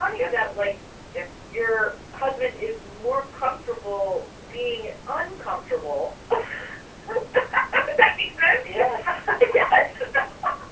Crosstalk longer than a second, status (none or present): none